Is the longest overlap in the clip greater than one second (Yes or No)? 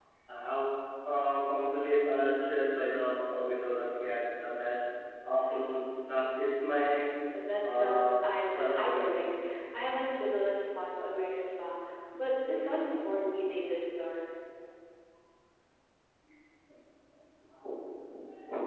Yes